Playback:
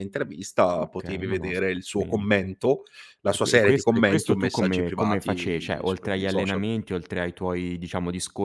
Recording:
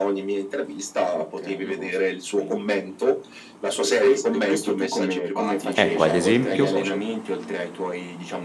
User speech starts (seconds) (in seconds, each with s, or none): 5.8 s